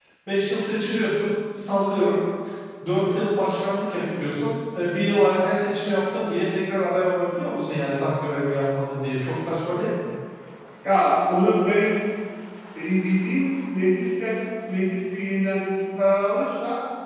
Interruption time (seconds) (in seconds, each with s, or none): none